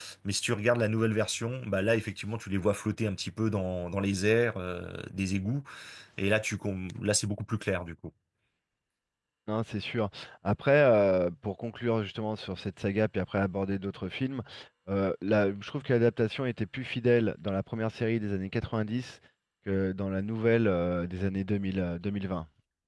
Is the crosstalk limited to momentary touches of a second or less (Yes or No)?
Yes